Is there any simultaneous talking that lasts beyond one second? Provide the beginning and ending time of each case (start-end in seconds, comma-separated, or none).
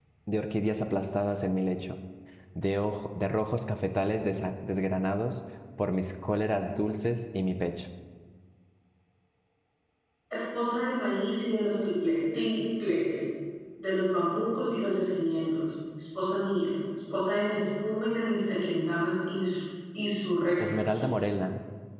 none